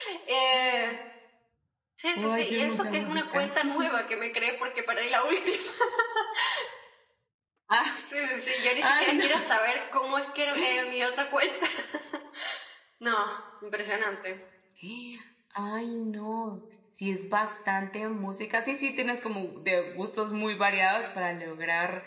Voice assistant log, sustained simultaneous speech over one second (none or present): present